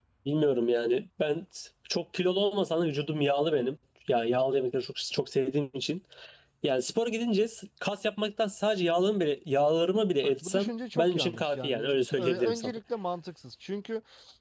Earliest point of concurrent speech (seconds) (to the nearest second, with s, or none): 10 s